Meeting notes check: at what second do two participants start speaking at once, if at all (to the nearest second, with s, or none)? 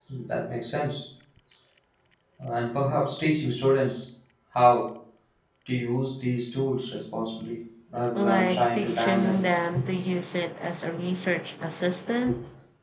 8 s